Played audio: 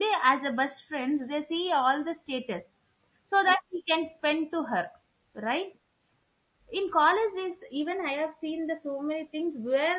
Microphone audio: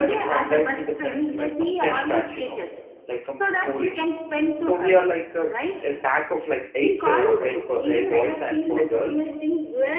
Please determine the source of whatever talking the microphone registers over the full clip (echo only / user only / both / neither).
both